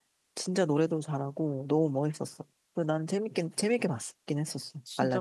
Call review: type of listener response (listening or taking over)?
taking over